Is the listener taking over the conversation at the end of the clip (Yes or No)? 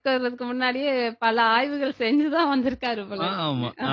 Yes